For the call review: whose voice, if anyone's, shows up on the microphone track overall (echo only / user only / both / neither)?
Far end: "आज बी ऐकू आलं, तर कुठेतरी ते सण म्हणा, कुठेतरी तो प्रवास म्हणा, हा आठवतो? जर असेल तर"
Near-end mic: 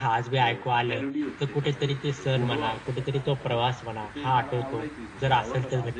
both